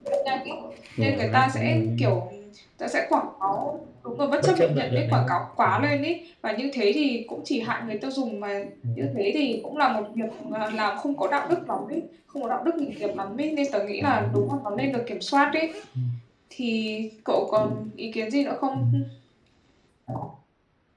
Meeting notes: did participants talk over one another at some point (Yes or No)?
Yes